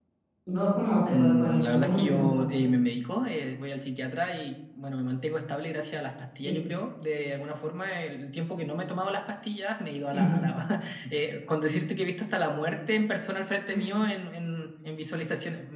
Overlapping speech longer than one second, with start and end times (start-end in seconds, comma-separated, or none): 1.1-2.7